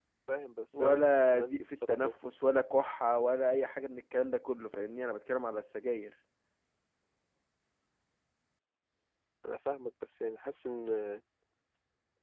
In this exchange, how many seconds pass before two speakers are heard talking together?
0.7 s

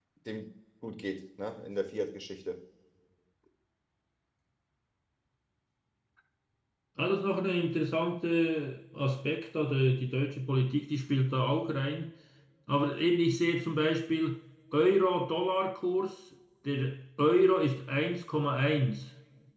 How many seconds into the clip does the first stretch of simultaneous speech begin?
none

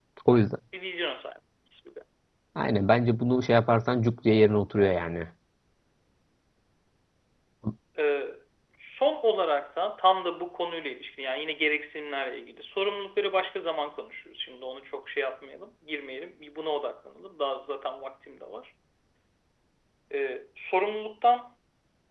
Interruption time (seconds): none

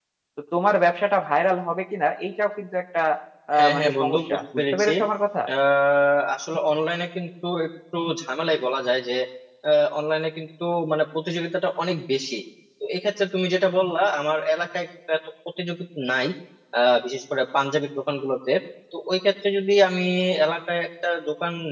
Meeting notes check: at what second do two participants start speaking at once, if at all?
3.6 s

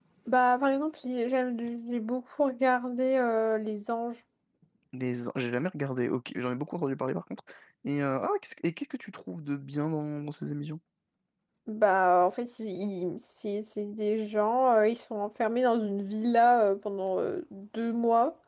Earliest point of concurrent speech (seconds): none

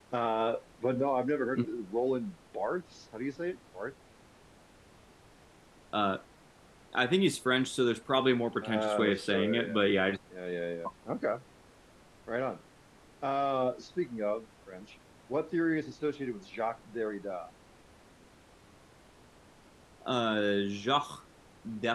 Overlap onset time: 8.6 s

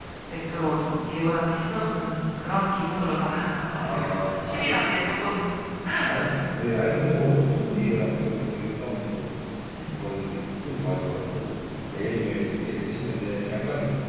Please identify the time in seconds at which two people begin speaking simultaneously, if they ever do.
3.8 s

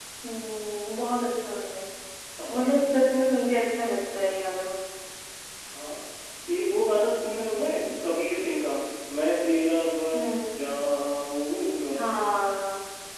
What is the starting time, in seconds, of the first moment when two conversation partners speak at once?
none

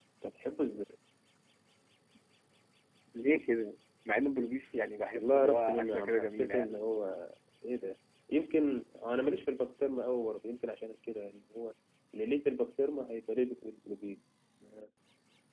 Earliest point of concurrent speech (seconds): 5.1 s

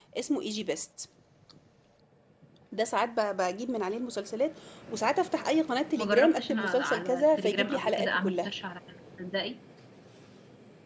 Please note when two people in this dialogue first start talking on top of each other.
6.0 s

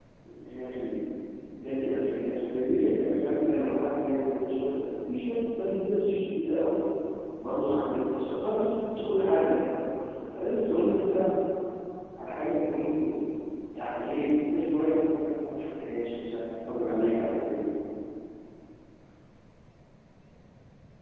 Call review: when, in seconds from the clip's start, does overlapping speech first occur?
none

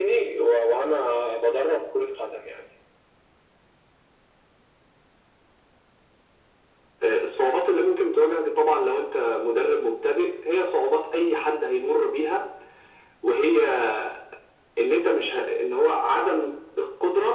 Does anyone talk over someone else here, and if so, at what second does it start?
none

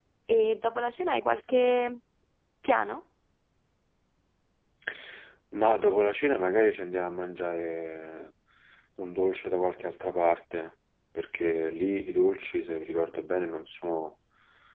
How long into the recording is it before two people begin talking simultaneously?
none

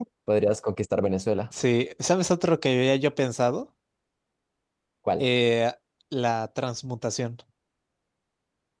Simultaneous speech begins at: none

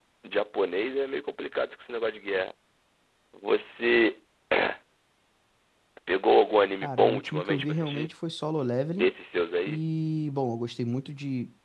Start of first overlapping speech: 6.8 s

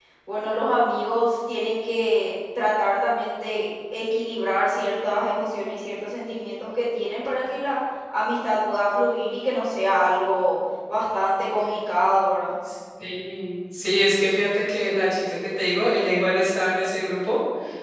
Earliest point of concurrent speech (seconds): none

